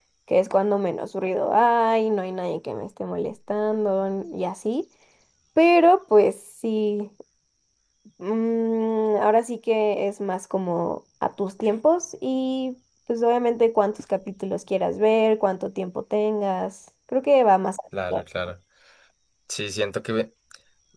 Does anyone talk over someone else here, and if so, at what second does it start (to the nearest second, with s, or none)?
none